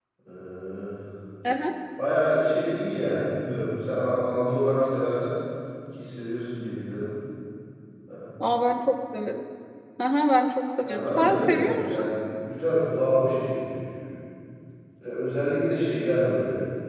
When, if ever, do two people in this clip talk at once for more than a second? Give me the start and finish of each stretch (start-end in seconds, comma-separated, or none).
10.8-12.0